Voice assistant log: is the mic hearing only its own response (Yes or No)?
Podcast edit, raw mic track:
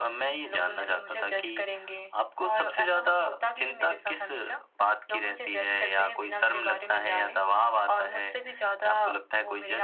Yes